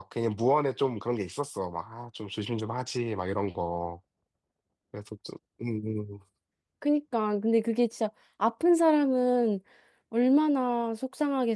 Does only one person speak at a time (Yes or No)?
Yes